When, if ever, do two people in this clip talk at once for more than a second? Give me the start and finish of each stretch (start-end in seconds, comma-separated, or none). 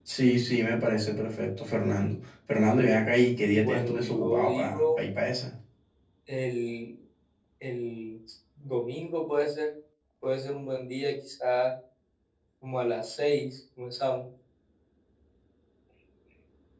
3.5-5.0